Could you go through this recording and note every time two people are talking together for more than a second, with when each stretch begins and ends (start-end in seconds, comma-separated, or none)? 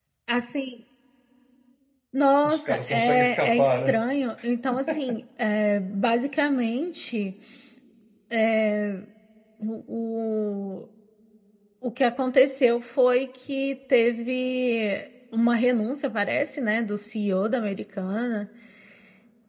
2.4-4.0